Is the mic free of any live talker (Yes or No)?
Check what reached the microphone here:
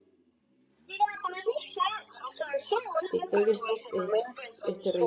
No